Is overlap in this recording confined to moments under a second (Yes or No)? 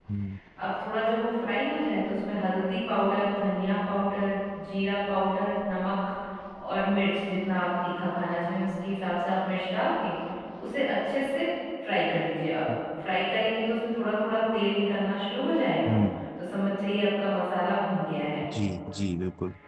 Yes